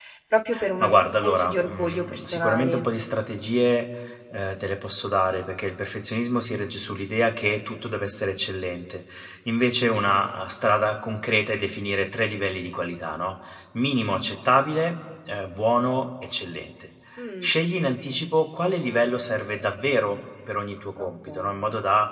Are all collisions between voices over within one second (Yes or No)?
No